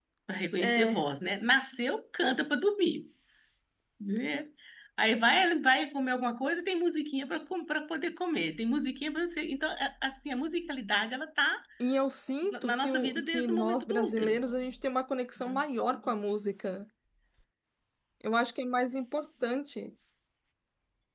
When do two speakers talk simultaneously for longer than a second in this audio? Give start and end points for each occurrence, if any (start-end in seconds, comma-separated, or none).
12.4-14.4